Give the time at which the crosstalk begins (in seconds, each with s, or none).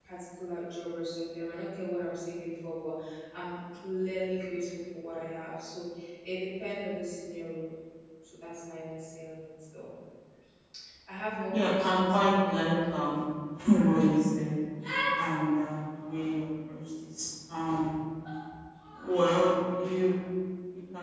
11.5 s